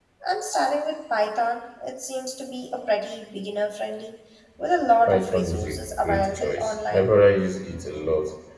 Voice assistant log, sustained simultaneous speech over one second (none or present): present